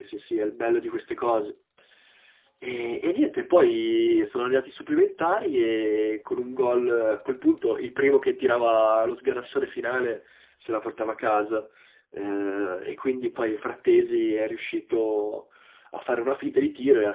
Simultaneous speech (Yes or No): No